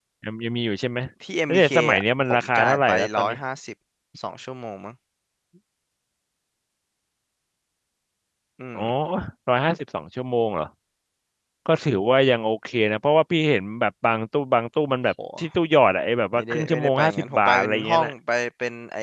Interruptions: present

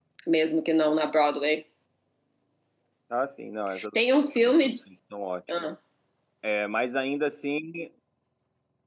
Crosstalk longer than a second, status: none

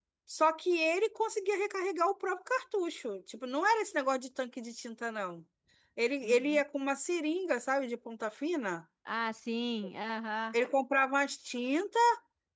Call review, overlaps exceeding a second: none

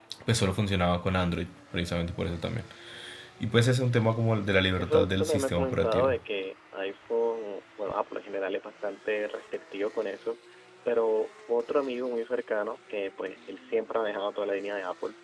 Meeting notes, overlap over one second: present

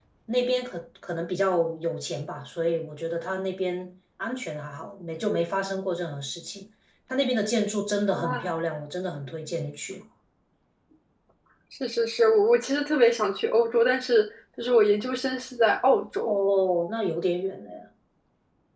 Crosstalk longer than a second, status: none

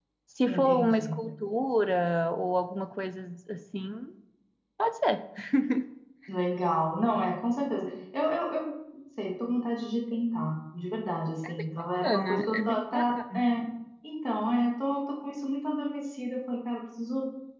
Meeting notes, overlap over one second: present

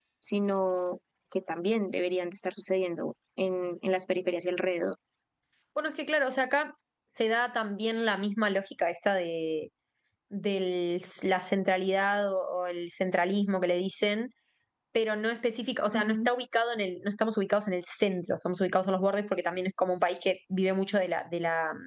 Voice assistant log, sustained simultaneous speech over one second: none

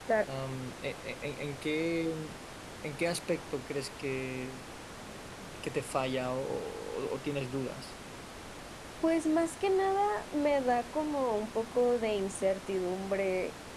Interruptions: none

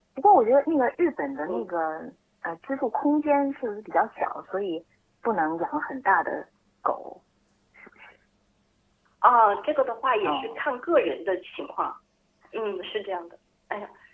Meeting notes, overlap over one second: none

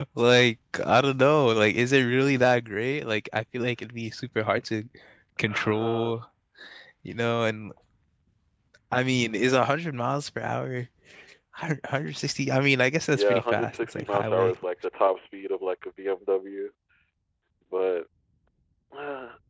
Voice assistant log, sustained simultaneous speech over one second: present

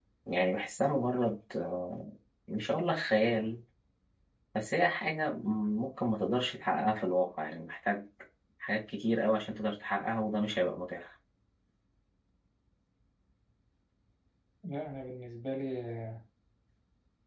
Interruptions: none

